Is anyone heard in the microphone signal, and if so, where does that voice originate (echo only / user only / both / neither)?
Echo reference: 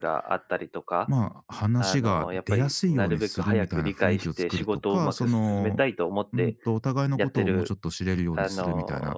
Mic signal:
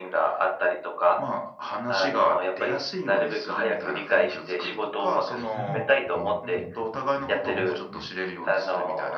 both